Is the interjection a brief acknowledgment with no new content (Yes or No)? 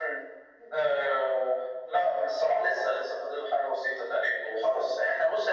Yes